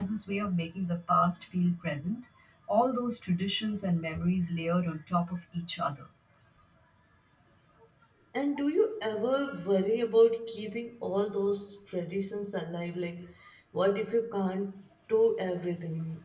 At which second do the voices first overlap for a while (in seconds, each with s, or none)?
none